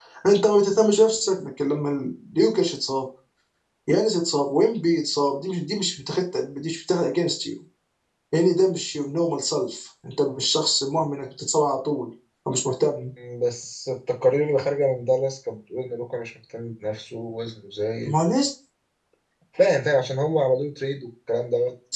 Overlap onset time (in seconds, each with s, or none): none